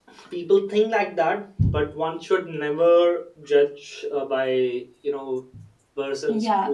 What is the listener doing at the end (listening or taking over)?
taking over